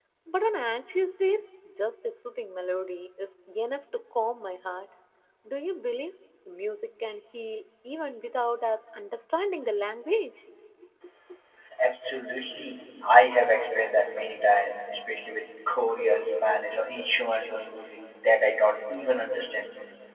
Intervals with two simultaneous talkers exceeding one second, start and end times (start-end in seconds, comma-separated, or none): none